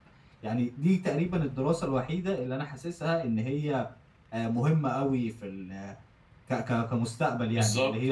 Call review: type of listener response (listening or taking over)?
taking over